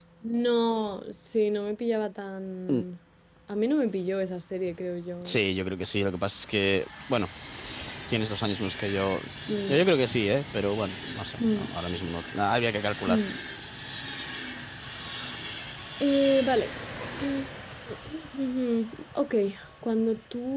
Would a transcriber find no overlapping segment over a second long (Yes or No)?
Yes